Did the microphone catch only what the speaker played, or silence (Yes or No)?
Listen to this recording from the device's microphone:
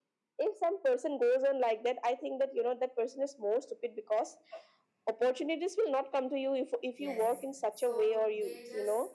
No